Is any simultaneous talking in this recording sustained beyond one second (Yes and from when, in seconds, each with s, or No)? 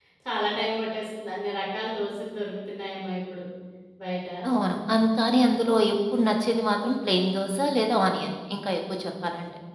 No